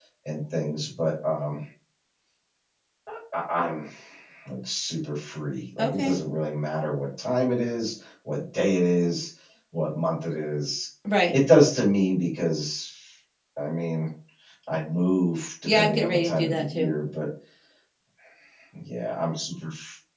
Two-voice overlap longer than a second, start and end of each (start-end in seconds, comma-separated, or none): 15.7-16.9